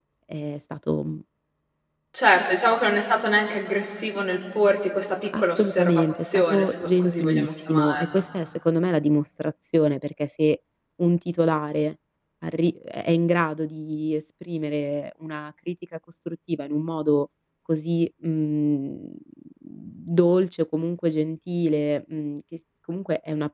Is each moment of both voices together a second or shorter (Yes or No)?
No